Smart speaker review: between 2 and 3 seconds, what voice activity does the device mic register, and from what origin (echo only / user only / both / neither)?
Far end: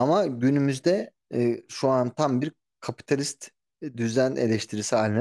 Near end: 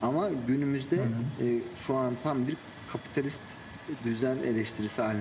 echo only